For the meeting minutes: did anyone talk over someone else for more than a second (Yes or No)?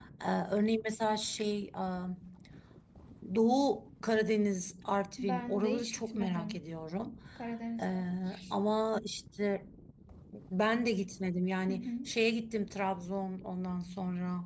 Yes